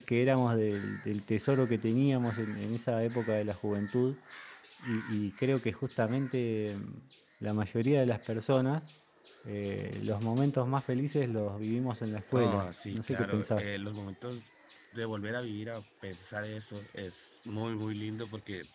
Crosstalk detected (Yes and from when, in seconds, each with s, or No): Yes, from 12.3 s